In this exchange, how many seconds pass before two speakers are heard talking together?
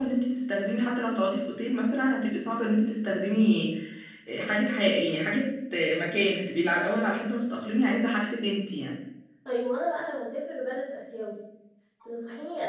none

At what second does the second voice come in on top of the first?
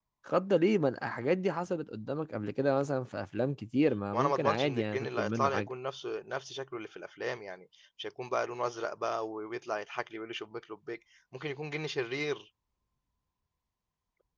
4.1 s

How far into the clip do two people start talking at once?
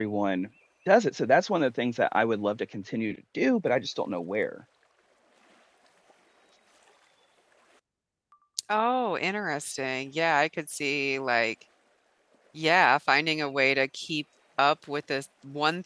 none

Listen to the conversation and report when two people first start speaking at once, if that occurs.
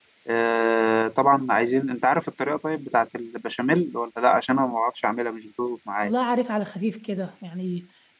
none

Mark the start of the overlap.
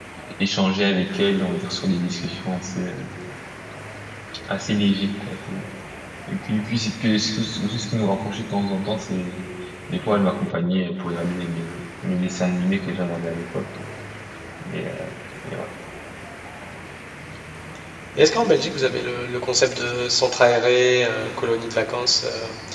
none

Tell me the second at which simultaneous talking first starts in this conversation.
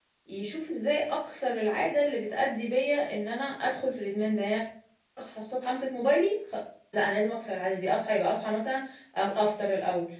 none

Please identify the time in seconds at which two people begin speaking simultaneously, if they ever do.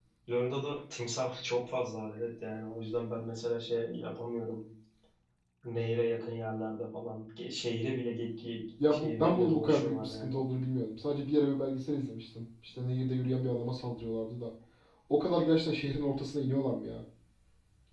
8.8 s

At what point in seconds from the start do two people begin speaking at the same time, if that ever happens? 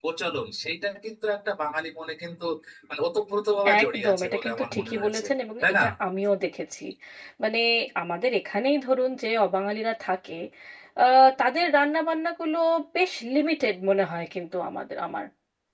3.8 s

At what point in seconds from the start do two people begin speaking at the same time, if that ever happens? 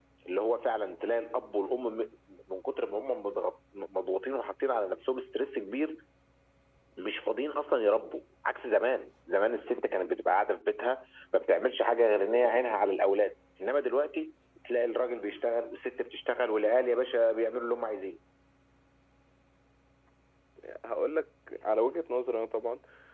none

